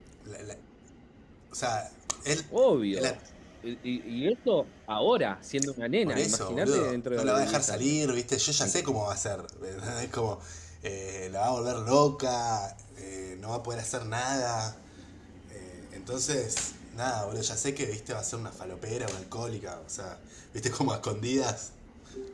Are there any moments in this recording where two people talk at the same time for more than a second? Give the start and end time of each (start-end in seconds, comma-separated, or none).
6.0-8.0